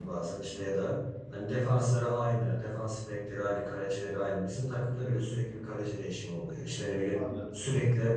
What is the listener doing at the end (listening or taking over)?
listening